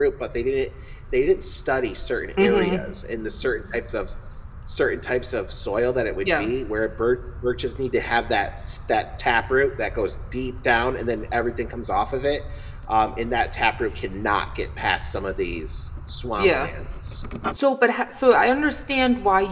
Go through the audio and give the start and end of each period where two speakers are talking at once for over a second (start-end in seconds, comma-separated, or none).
none